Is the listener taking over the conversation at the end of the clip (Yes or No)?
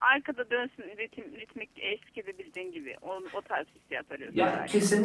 Yes